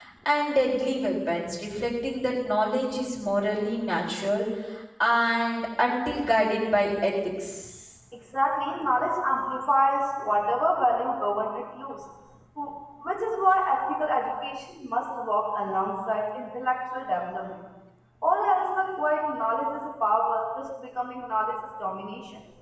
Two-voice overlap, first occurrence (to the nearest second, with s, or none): none